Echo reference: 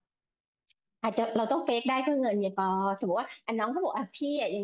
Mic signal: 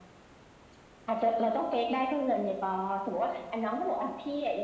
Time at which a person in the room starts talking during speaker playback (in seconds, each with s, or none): none